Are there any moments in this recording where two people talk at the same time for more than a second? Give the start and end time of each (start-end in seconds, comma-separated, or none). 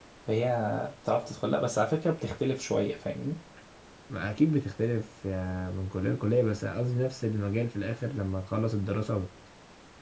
none